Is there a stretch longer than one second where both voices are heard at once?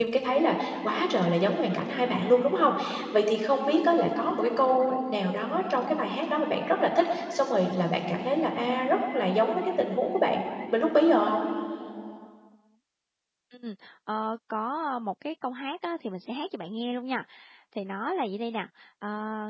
No

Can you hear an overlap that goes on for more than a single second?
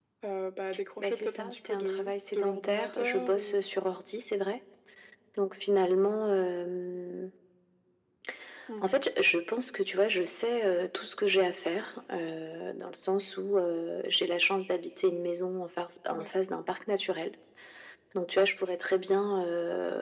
Yes, from 1.0 s

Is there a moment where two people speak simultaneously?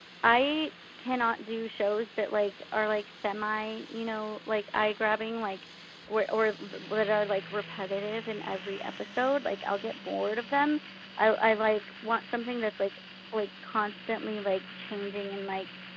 No

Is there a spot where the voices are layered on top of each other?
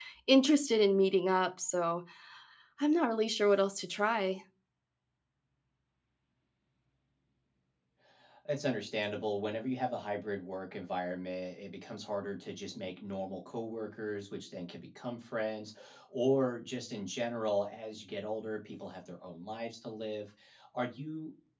No

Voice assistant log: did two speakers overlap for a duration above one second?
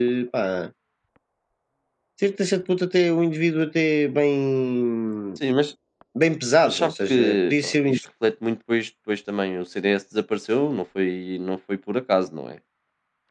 Yes, from 6.6 s

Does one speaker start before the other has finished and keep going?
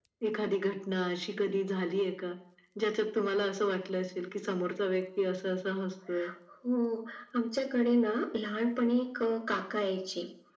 No

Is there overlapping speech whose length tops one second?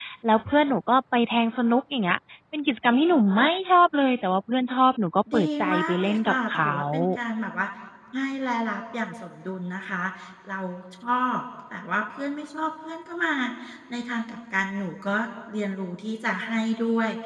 Yes, from 5.3 s

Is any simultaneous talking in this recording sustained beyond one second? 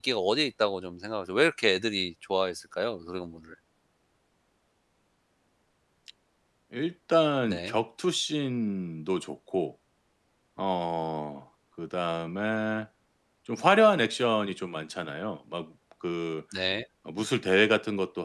No

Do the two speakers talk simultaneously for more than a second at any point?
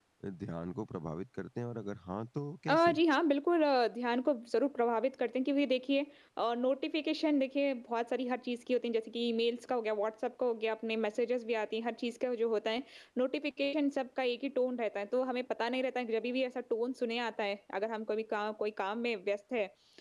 No

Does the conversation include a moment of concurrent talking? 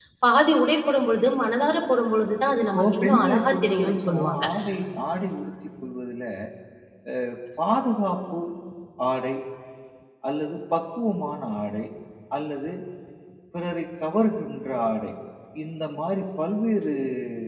Yes, from 2.7 s

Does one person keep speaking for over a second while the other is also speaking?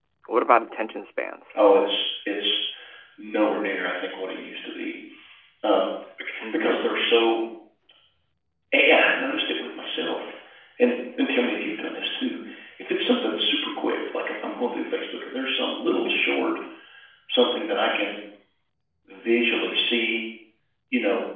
No

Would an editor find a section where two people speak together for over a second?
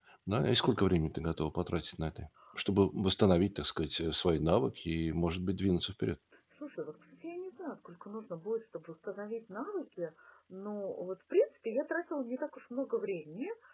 No

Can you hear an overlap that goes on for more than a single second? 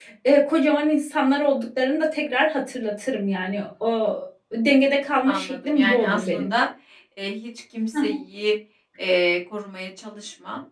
Yes, from 5.2 s

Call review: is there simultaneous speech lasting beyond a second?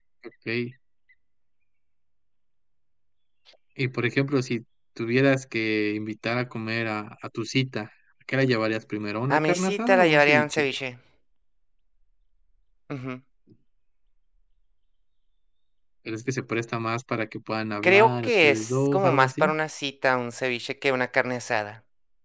Yes, from 9.3 s

